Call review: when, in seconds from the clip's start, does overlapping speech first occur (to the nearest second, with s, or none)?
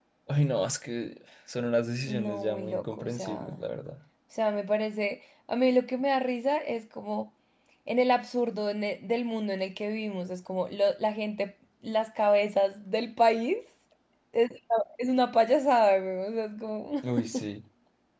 2 s